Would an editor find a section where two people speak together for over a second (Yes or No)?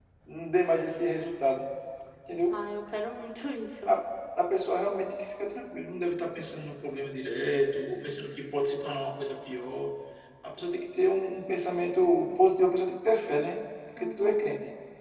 No